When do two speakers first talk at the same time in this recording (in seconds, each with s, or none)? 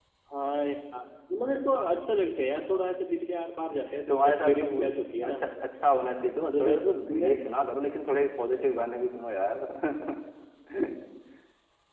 4.1 s